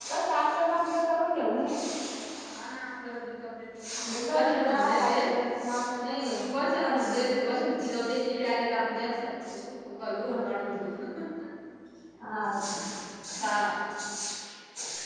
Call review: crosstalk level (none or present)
present